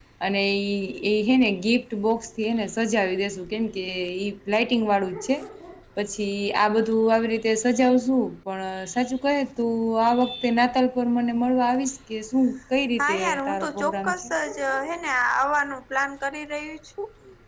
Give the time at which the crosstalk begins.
13 s

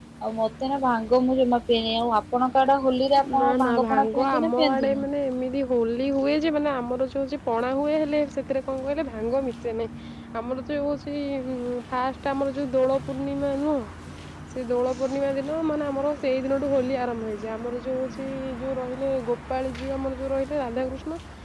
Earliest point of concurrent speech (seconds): 3 s

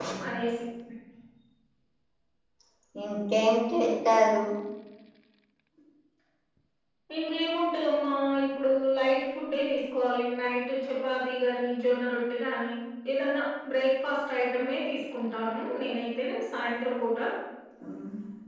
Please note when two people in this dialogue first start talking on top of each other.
none

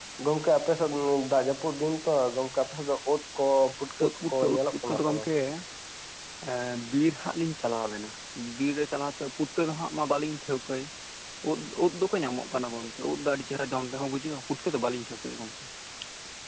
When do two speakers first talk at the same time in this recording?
4 s

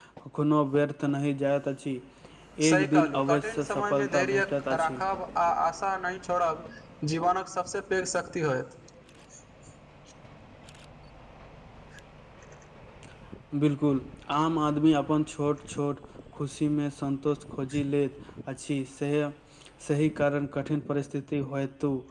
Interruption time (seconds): 3 s

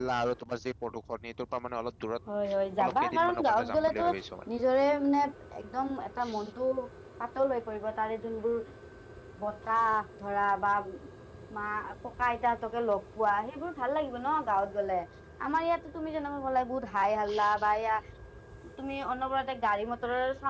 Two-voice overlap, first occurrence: 2 s

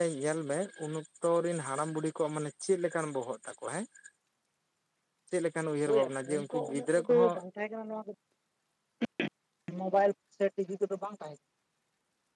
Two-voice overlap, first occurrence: 6 s

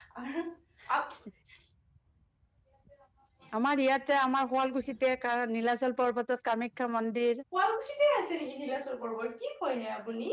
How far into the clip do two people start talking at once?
none

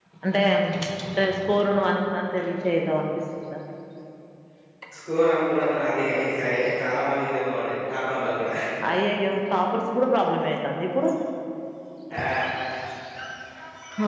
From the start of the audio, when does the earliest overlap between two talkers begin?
none

